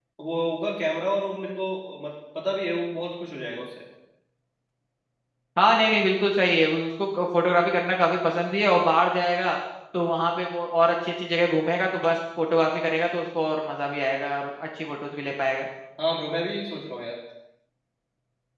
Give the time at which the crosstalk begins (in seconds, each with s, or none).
none